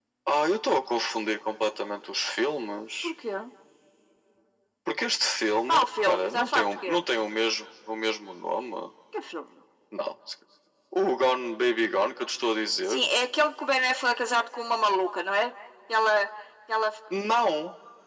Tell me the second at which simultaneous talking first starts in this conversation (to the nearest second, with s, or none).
6 s